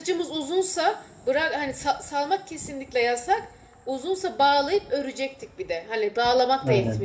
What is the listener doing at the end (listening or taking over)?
listening